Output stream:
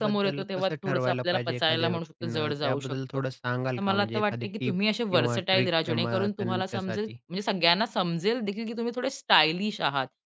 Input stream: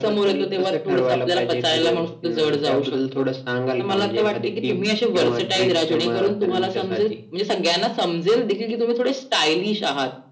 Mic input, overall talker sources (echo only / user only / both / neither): echo only